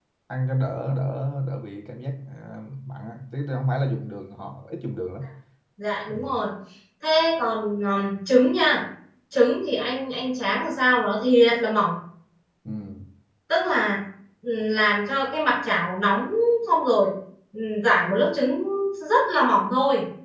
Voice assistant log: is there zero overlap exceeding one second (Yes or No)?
Yes